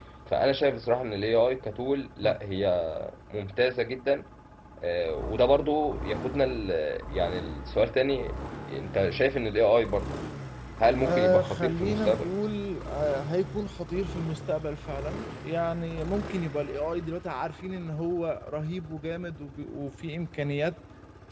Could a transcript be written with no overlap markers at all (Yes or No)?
No